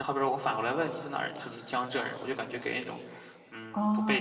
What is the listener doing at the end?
taking over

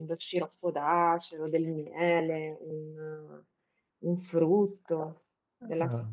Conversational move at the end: listening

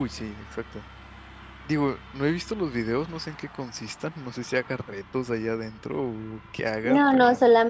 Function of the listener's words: taking over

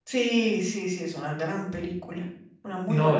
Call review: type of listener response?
taking over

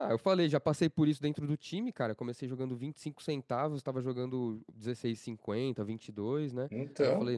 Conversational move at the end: listening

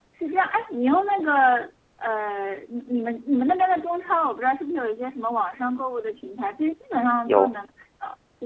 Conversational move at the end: listening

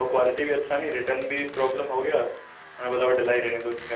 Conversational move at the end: taking over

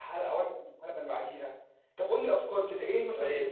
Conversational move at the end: taking over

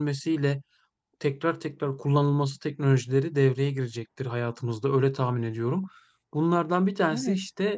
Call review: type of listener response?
listening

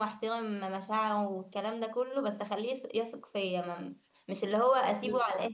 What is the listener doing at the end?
listening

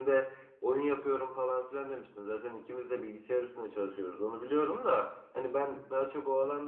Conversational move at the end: listening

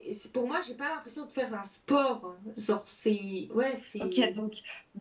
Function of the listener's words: taking over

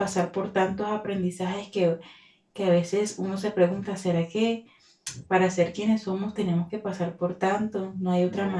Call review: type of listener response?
taking over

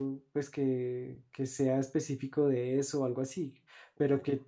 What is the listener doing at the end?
listening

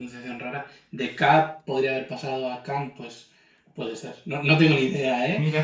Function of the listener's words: listening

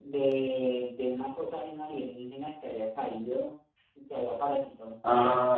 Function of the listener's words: taking over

